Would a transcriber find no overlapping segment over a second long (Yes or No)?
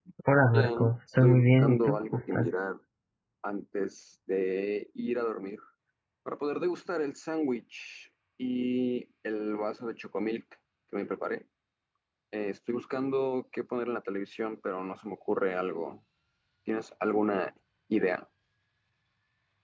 No